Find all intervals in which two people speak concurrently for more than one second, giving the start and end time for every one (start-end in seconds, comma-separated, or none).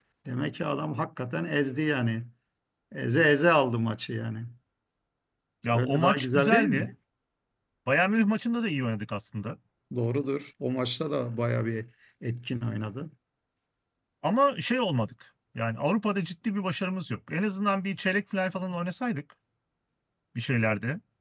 5.6-6.9